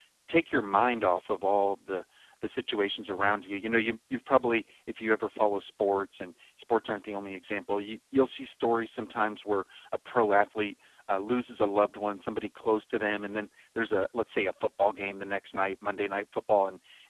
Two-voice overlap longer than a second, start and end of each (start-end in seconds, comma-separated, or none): none